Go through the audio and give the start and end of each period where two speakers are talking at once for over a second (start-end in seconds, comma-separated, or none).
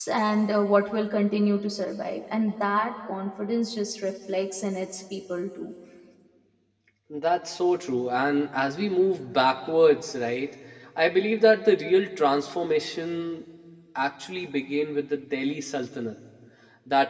none